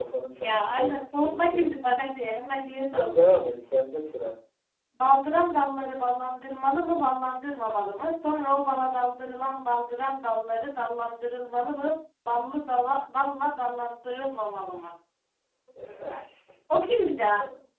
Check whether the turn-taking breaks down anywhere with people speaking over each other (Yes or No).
Yes